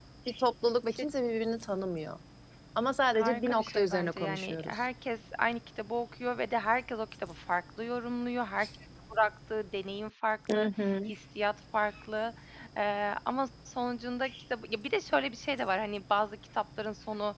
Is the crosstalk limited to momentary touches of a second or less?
No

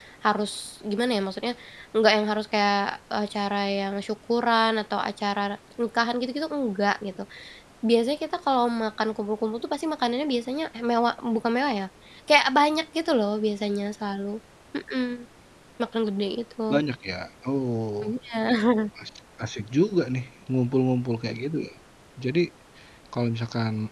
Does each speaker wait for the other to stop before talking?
Yes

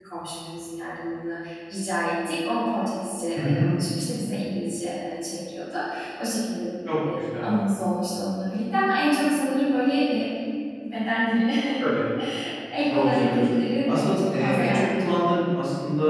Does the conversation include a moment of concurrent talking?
Yes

